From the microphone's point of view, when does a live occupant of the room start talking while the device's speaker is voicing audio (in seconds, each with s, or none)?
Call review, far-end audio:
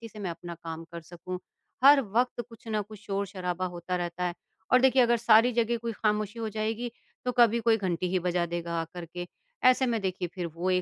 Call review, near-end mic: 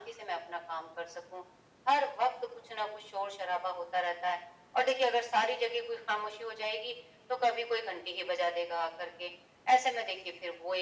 none